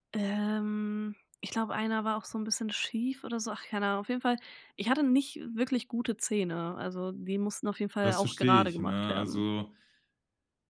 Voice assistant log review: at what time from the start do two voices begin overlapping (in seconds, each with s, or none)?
8.0 s